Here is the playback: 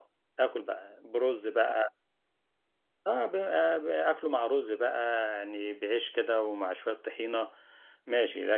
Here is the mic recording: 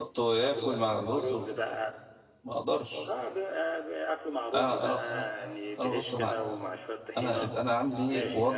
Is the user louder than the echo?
Yes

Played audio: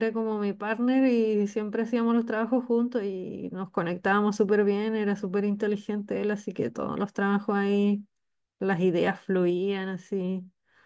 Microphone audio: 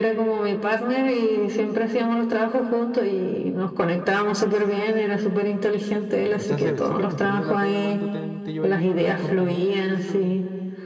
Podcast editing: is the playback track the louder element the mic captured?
Yes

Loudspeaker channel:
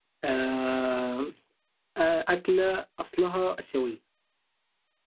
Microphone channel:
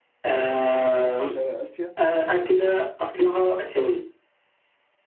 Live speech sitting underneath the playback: Yes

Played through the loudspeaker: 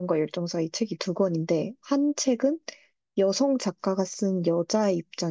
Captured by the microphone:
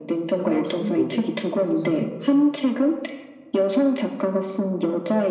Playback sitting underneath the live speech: No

